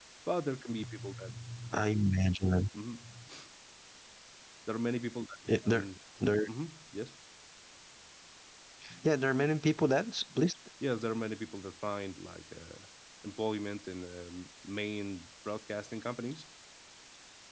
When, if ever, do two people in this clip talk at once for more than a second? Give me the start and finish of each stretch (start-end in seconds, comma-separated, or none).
none